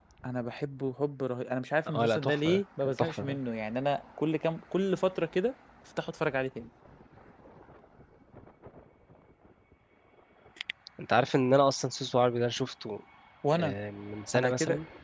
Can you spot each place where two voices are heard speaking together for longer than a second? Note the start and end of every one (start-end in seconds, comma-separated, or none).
2.0-3.4